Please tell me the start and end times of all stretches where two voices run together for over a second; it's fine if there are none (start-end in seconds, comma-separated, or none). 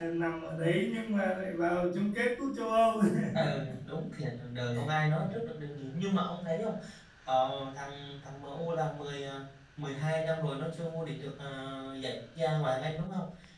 none